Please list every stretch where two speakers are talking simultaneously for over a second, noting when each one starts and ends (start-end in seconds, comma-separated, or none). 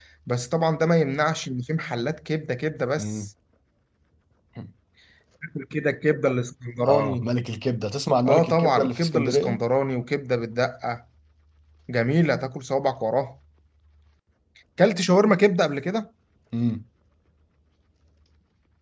8.2-9.6